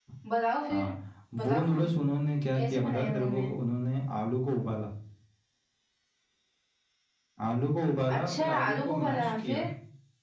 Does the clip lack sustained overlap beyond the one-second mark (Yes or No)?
No